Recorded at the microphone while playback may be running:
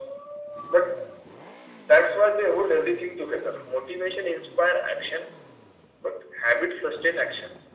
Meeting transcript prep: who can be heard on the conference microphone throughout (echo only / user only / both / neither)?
echo only